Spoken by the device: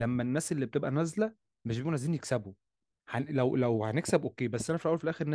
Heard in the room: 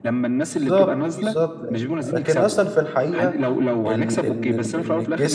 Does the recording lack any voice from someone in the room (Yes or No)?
No